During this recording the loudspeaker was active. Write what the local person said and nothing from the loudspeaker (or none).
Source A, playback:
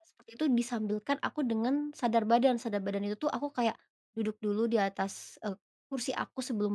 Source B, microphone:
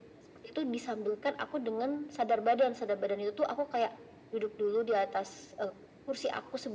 none